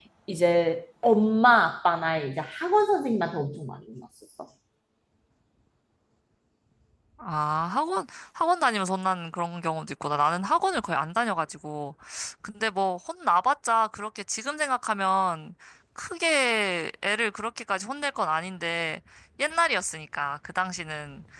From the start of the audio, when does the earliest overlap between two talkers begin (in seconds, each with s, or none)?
none